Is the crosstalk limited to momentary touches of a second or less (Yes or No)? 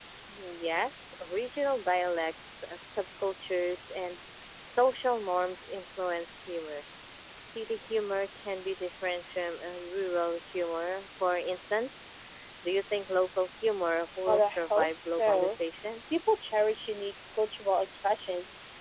No